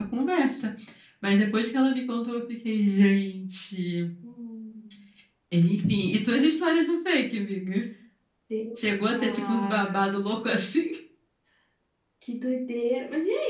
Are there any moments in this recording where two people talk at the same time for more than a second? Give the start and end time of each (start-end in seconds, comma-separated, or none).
8.8-10.2